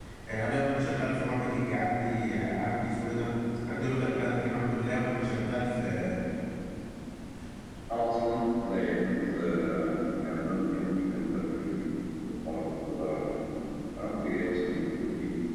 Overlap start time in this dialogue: none

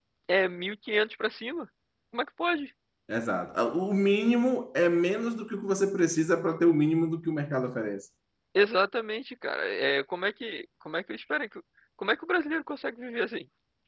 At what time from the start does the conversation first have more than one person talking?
none

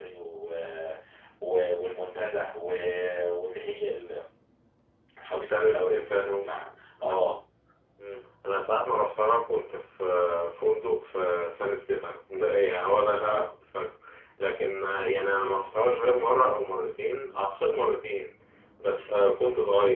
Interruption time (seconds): 5 s

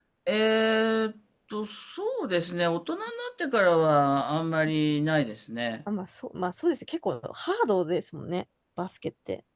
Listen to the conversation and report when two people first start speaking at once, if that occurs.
none

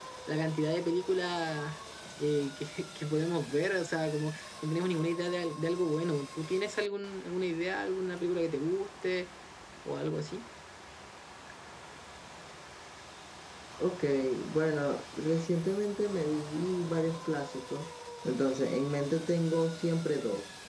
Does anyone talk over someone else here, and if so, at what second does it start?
none

